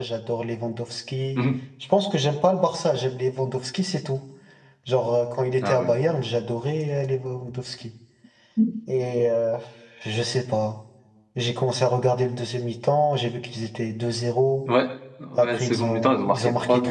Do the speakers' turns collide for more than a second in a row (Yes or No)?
Yes